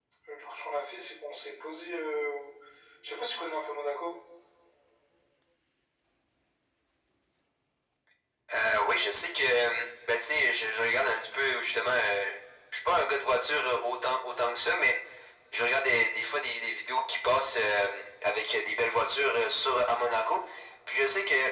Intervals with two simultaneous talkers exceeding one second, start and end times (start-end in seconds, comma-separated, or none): none